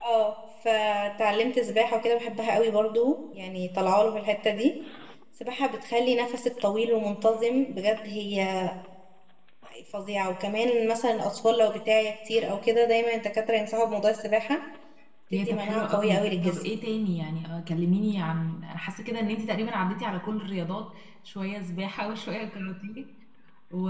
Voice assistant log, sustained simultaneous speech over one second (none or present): present